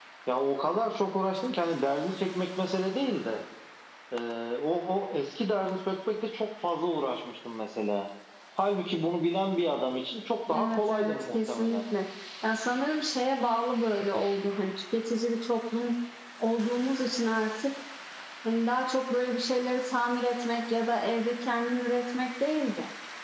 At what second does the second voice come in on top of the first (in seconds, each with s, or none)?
10.5 s